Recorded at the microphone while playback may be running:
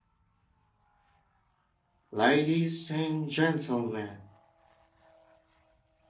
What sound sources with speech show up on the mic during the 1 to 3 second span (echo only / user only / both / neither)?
user only